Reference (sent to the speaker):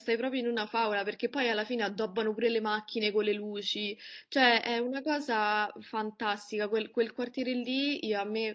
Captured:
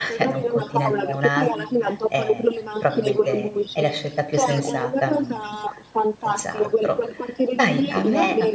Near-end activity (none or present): present